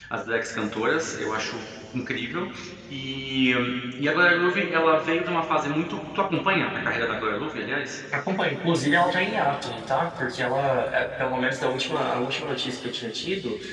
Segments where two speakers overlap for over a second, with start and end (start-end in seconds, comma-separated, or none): none